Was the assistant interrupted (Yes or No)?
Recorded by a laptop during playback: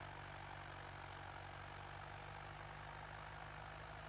No